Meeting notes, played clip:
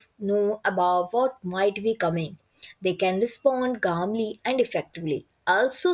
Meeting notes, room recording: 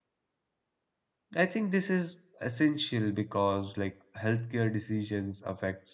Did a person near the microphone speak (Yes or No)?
Yes